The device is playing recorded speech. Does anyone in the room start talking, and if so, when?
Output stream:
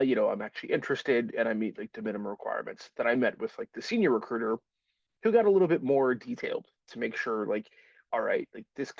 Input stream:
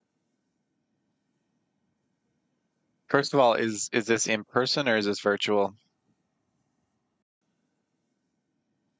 3.1 s

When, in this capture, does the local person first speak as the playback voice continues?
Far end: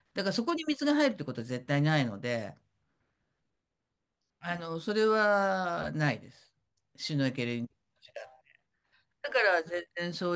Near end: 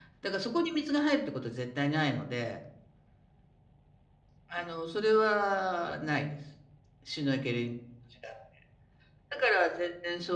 none

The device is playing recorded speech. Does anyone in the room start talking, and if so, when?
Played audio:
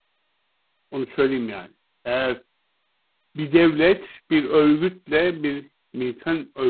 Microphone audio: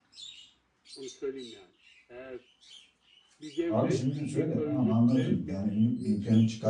3.7 s

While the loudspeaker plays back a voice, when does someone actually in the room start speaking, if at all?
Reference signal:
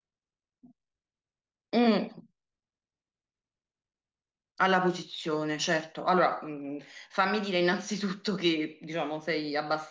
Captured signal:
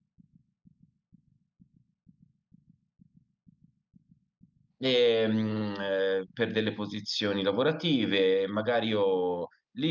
4.8 s

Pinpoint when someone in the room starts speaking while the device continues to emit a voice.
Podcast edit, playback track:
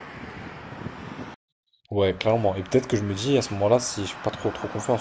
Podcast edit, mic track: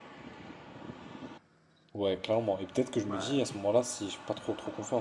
3.0 s

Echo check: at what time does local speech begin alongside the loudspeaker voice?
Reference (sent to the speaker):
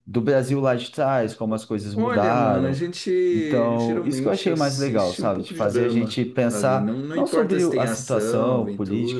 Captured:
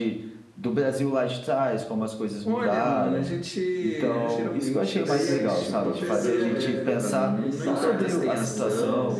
4.0 s

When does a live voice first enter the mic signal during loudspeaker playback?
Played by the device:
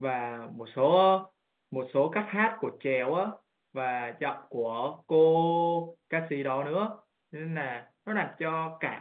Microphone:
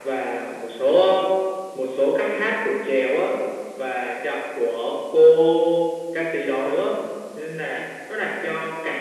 none

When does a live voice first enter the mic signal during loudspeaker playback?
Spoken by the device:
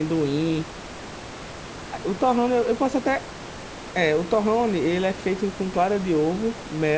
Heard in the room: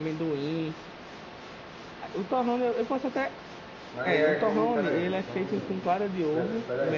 3.9 s

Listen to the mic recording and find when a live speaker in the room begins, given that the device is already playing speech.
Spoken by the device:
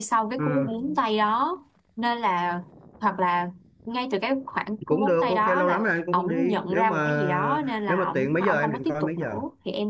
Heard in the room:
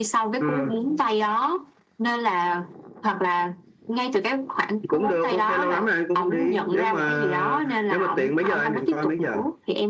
none

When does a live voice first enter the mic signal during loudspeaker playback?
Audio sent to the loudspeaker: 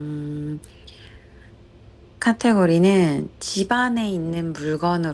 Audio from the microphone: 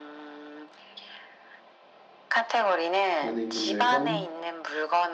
3.2 s

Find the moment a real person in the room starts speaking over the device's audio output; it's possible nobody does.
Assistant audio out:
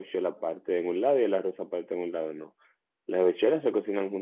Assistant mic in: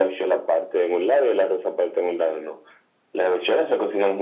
none

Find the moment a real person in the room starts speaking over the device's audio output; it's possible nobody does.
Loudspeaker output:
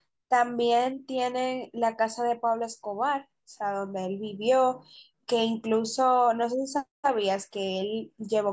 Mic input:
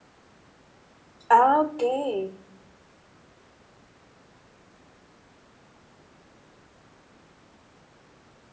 1.3 s

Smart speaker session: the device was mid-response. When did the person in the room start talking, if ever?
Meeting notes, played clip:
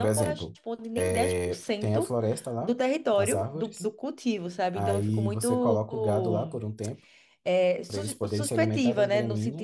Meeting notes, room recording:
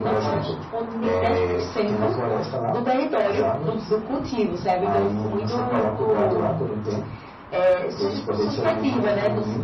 none

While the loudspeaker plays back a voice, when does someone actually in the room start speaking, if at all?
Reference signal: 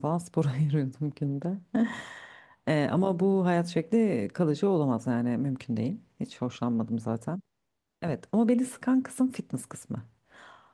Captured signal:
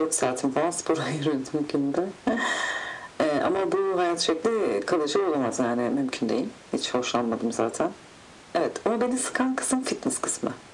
none

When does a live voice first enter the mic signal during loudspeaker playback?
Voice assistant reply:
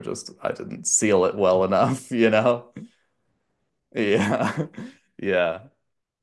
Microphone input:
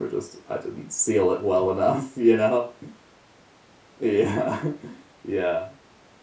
none

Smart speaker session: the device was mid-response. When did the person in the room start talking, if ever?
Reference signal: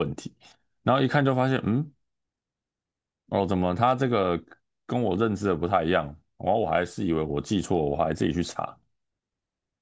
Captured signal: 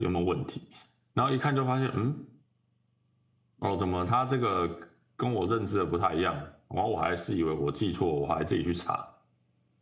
none

